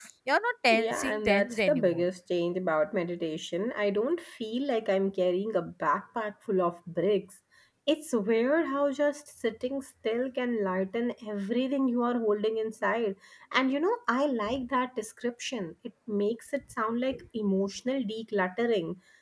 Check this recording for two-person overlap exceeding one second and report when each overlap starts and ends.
0.7-2.1

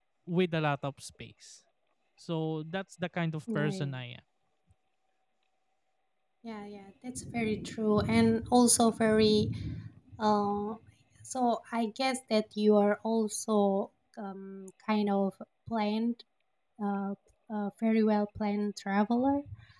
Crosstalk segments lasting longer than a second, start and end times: none

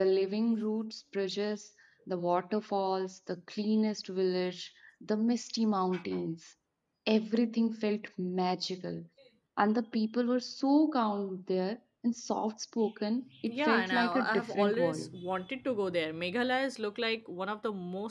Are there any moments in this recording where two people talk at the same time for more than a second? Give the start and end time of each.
13.5-15.1

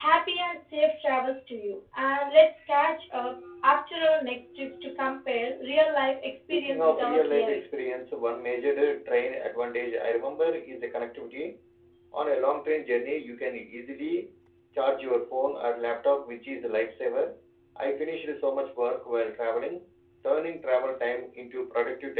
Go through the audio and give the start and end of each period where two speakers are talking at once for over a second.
6.5-7.8

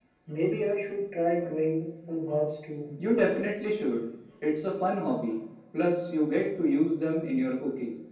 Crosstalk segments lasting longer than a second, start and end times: none

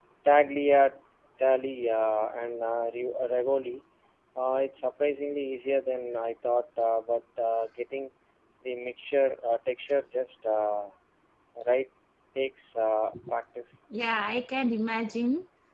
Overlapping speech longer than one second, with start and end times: none

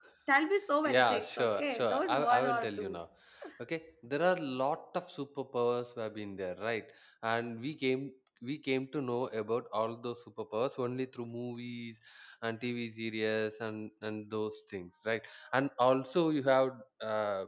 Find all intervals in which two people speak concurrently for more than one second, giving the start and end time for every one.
0.8-3.0

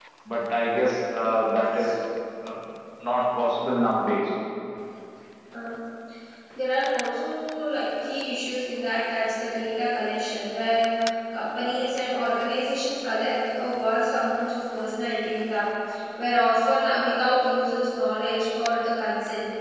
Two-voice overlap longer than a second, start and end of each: none

